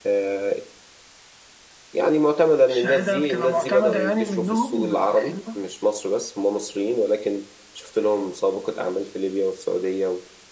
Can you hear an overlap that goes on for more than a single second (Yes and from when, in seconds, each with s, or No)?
Yes, from 2.7 s